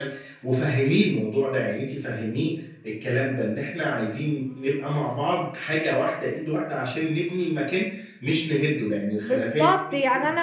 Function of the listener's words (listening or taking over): taking over